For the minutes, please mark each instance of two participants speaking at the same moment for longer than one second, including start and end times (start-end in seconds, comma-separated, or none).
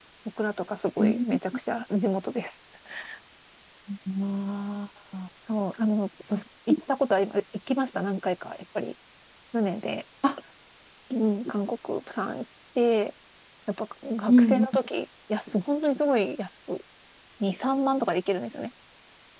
none